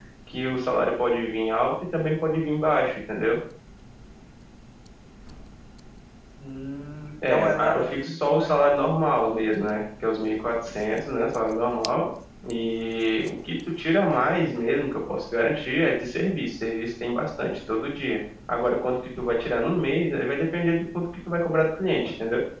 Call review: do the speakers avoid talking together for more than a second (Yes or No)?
No